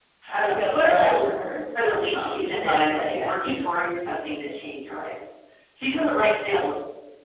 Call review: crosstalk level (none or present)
present